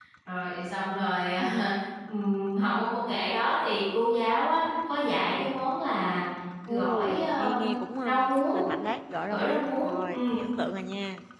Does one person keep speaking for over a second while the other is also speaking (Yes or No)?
Yes